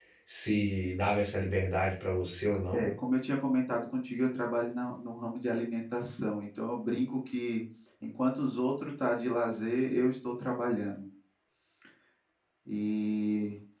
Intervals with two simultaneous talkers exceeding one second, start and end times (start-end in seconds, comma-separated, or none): none